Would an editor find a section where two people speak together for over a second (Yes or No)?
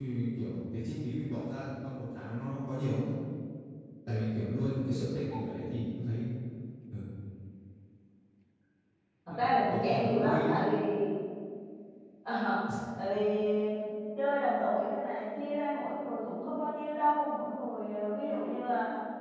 Yes